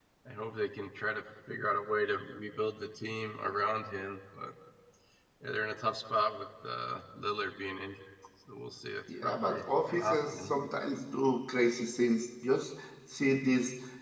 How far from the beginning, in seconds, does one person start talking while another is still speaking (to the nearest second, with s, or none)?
9 s